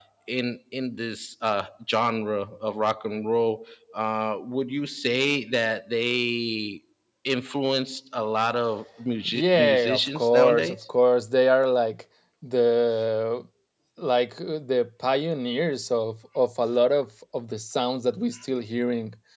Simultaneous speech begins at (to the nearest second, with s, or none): 9 s